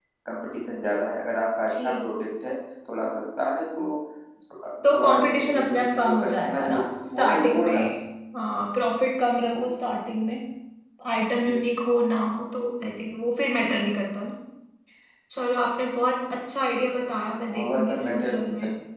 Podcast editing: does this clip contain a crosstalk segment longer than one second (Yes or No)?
Yes